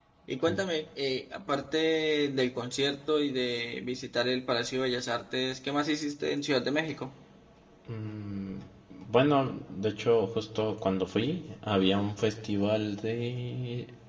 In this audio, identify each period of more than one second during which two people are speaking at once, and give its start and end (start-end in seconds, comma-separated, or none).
none